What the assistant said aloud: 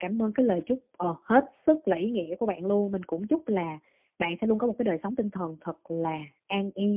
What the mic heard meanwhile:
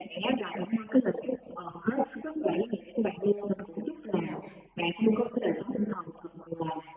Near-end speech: present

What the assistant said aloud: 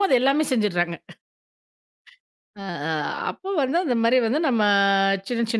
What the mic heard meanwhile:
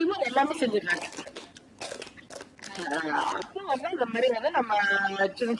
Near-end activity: none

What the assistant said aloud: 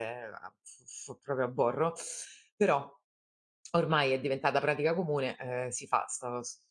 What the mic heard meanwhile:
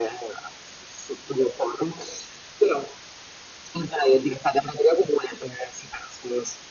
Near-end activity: none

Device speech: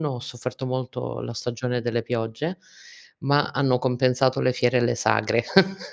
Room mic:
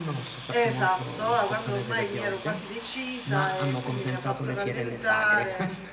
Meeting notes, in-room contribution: present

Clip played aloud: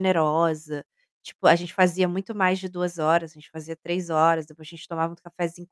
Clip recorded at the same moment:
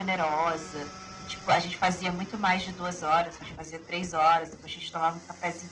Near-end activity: none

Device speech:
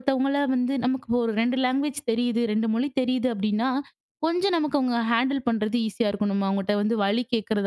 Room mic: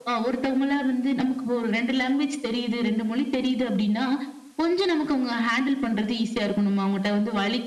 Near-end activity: none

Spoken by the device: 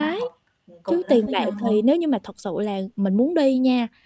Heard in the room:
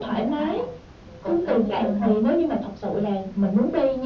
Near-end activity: none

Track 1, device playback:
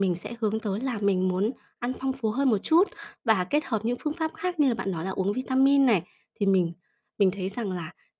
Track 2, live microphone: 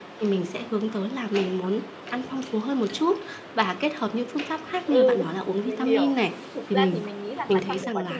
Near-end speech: present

